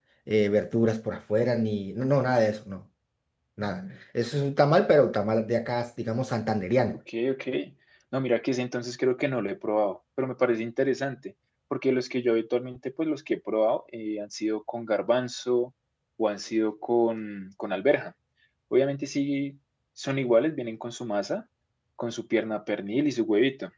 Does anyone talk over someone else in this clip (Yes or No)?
No